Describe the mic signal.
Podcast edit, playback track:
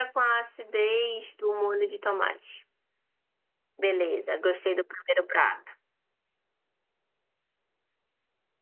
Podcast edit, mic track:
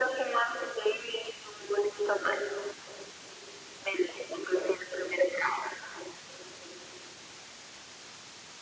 echo only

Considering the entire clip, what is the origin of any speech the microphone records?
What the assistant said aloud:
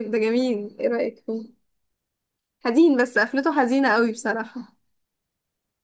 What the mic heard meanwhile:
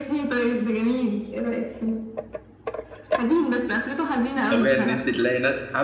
both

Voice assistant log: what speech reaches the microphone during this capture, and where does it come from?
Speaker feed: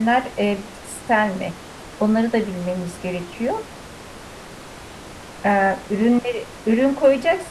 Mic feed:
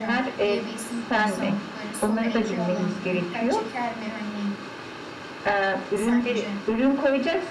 both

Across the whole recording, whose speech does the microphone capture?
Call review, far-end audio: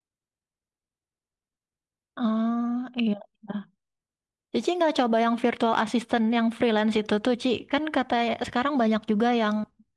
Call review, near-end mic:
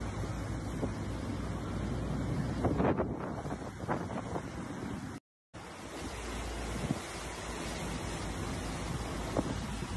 neither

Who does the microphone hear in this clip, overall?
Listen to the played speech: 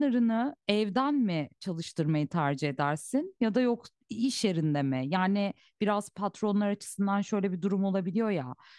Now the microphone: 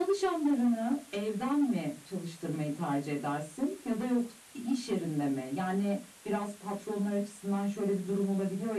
echo only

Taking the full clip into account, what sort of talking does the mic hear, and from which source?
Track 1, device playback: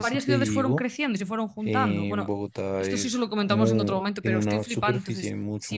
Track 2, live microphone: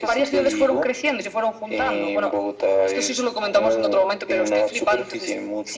echo only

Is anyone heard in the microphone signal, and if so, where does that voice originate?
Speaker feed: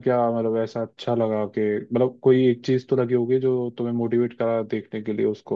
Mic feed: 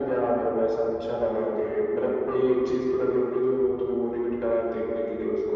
echo only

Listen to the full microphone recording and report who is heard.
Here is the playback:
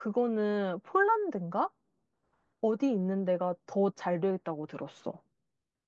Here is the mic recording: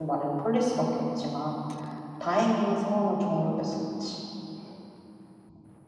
user only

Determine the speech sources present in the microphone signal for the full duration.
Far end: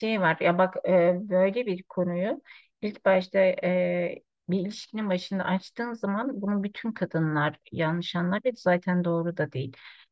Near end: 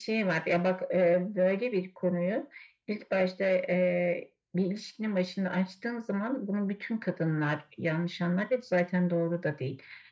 echo only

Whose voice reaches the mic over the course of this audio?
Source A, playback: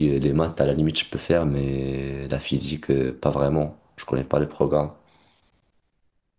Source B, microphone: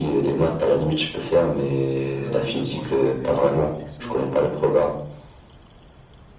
both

